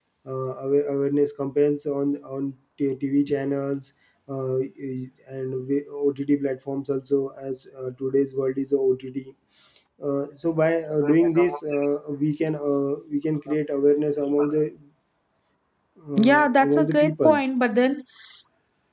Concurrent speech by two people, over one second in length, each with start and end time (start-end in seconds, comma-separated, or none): 16.2-17.4